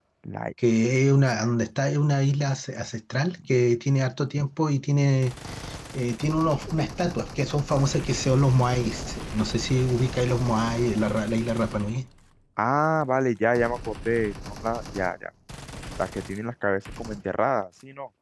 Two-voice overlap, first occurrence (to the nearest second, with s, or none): none